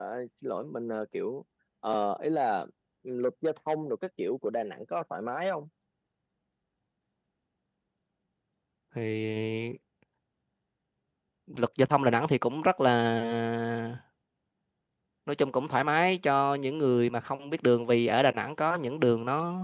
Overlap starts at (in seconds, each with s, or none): none